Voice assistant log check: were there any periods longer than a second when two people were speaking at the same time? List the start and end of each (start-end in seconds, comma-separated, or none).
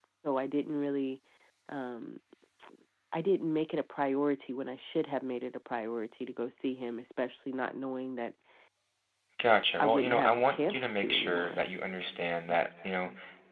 9.8-11.6